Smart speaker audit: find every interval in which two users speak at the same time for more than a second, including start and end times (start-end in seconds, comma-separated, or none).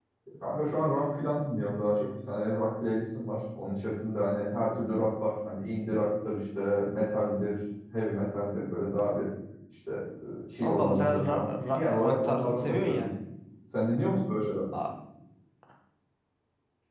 10.7-13.1